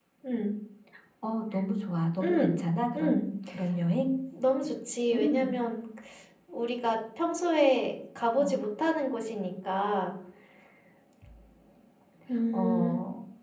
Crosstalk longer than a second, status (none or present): none